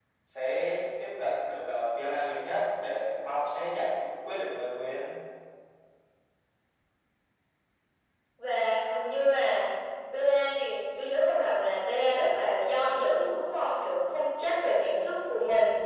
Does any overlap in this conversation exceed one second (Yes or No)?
No